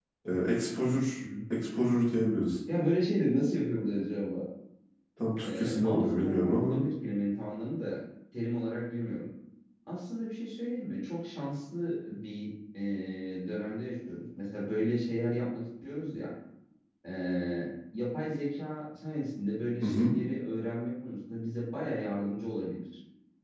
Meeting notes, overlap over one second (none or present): present